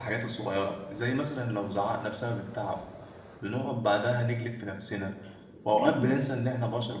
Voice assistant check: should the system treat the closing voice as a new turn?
No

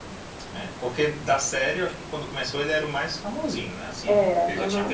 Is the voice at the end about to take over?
No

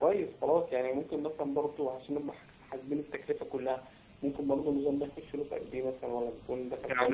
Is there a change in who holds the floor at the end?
Yes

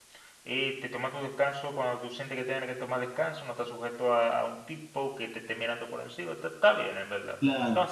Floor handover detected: Yes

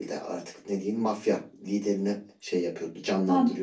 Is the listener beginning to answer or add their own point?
Yes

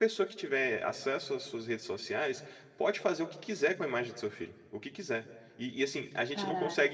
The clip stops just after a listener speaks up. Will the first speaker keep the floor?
Yes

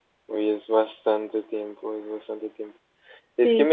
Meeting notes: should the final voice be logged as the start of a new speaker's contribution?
No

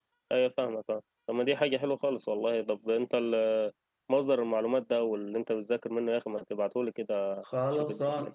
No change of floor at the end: No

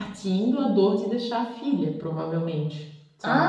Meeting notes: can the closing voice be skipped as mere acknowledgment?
No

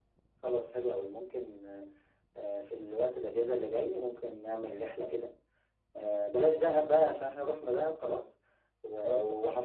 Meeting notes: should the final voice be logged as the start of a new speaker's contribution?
No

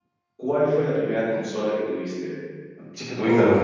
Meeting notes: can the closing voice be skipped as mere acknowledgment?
No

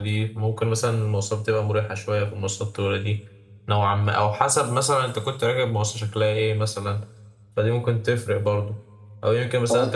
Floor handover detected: No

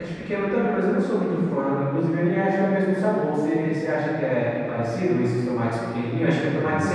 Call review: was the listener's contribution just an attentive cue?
No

